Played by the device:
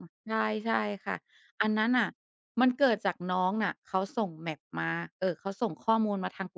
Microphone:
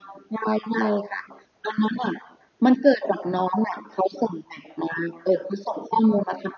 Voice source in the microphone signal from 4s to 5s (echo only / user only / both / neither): echo only